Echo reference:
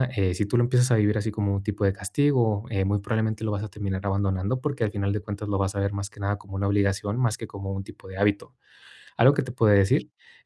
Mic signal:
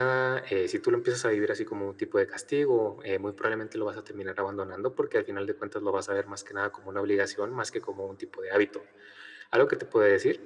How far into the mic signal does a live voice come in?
none

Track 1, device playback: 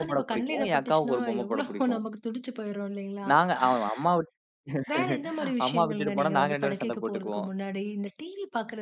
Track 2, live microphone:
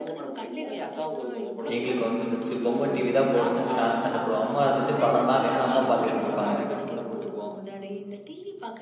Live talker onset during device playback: 2 s

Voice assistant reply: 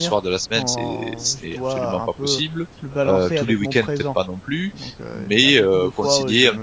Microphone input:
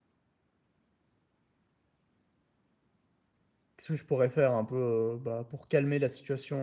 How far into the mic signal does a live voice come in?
4 s

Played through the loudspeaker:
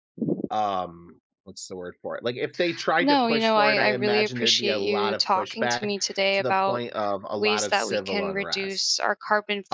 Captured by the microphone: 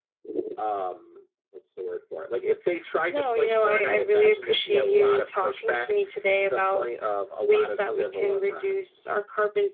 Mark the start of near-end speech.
none

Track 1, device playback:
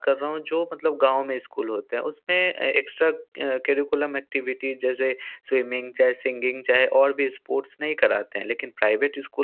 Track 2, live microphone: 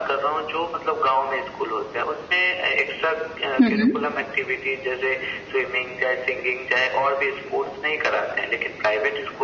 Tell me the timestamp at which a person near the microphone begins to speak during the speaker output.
4 s

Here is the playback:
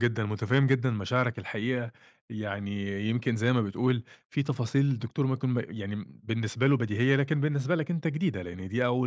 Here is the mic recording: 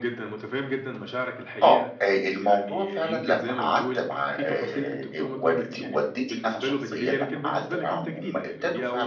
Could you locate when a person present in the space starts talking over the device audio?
2 s

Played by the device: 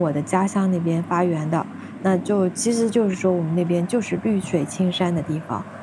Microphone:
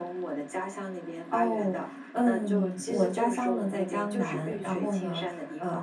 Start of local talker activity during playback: 1 s

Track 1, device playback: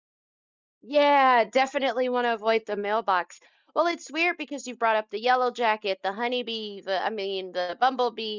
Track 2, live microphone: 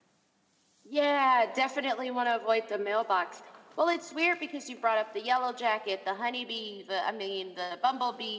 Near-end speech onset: none

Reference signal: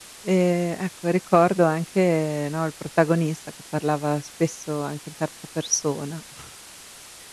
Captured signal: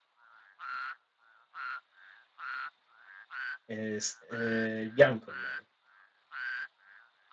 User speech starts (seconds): 4 s

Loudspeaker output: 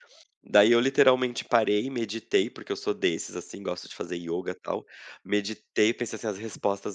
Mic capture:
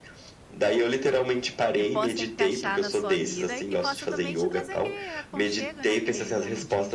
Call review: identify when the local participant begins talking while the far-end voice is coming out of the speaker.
2 s

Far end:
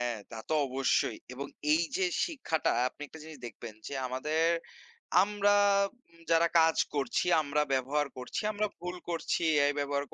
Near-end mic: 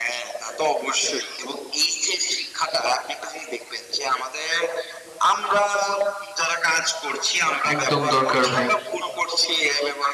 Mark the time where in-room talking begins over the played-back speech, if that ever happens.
8 s

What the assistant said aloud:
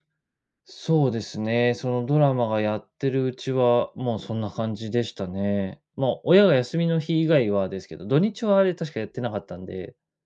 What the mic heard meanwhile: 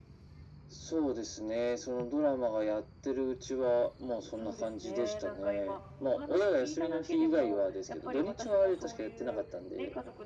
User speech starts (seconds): 4 s

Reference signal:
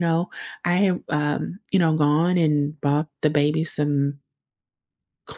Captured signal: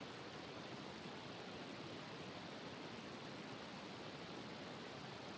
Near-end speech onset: none

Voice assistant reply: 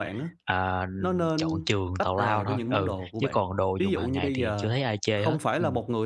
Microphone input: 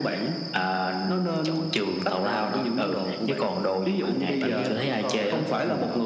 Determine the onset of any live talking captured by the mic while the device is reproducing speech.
4 s

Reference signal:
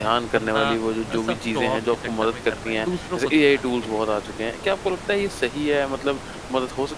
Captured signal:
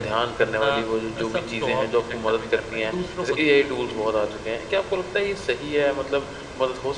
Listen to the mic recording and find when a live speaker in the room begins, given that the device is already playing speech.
none

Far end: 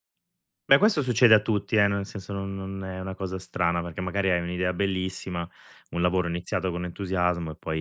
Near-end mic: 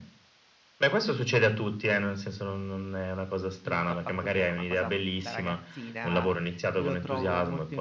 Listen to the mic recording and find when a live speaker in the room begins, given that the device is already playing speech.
4 s

